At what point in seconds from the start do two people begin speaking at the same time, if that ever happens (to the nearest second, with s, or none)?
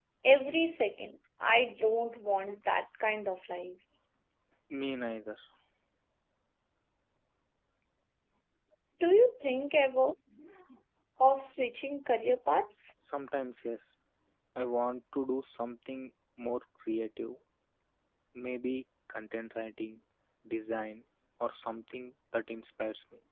none